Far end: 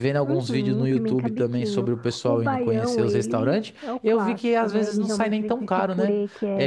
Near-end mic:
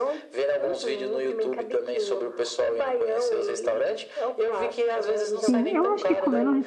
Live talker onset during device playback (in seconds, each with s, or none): 5.5 s